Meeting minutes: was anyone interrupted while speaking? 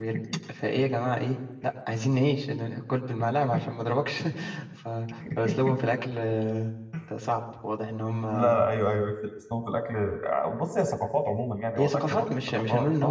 Yes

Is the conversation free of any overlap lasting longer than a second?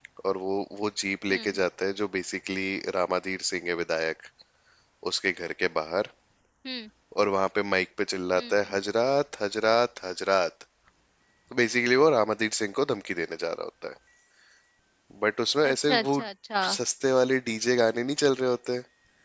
Yes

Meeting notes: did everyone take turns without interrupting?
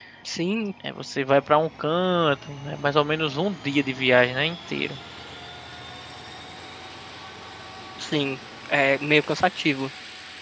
Yes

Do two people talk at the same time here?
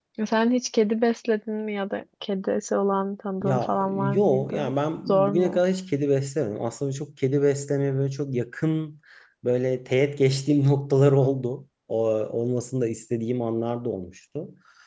Yes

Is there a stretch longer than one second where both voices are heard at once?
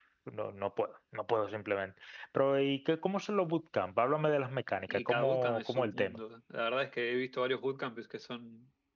Yes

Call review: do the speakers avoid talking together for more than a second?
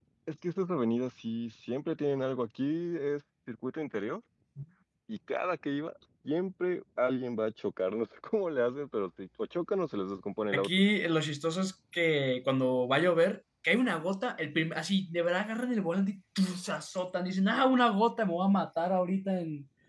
Yes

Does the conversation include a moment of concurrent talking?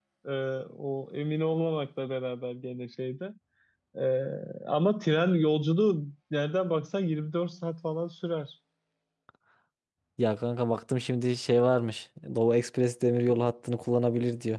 No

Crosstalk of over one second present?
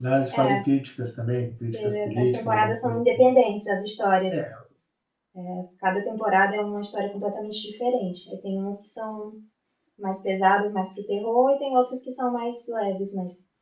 Yes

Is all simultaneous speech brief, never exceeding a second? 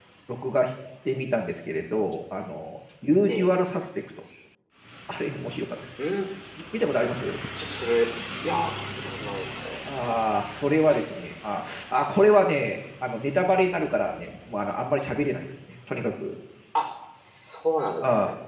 Yes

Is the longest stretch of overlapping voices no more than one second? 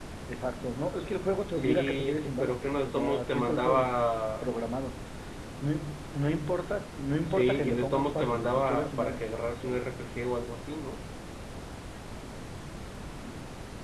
No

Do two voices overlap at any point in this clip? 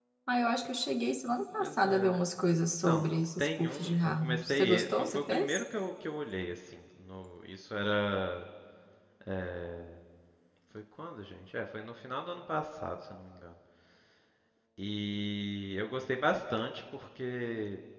Yes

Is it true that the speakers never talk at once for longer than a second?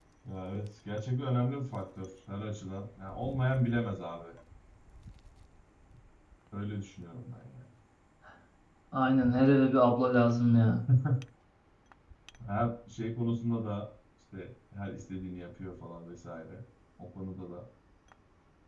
Yes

